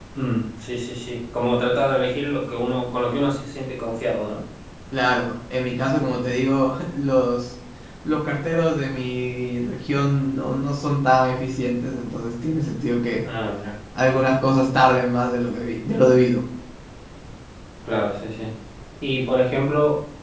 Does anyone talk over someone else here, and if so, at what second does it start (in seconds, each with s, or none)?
none